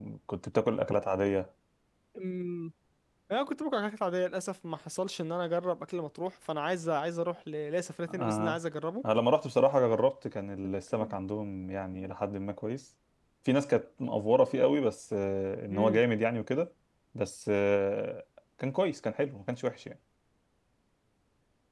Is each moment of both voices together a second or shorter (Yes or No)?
Yes